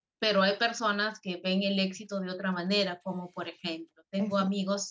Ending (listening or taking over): listening